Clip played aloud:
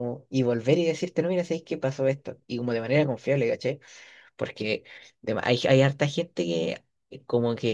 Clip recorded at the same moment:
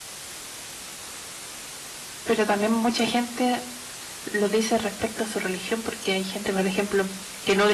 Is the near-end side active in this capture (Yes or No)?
Yes